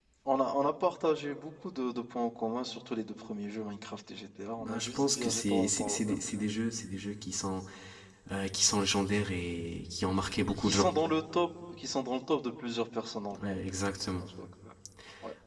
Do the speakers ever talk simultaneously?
Yes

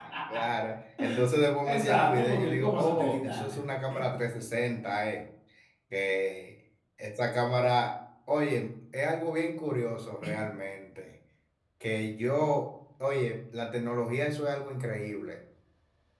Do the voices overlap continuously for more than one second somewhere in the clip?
Yes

